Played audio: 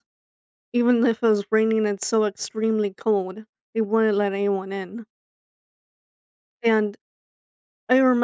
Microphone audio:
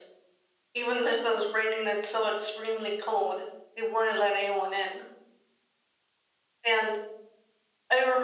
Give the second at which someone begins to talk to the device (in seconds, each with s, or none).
none